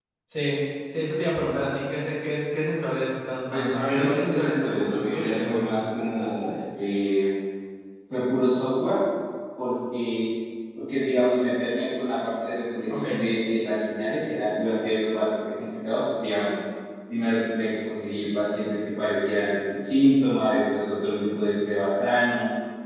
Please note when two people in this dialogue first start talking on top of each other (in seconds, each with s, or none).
3.5 s